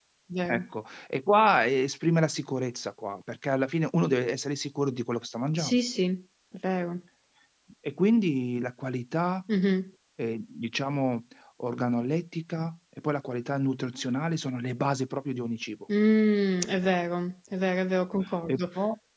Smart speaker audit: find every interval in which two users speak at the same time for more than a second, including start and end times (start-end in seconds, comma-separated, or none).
none